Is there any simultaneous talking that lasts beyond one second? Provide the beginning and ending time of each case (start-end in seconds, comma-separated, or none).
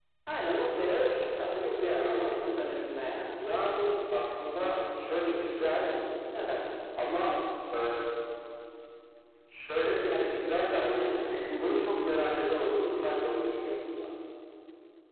9.8-11.1